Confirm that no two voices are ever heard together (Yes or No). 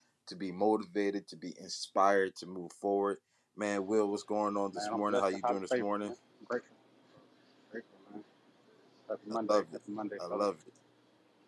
No